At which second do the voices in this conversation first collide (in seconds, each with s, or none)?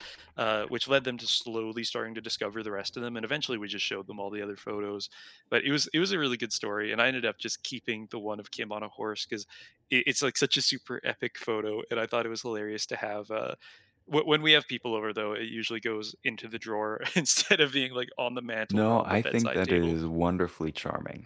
18.7 s